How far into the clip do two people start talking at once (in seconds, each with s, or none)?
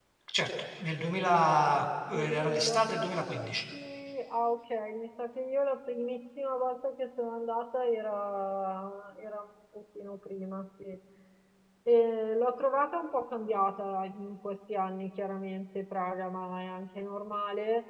2.1 s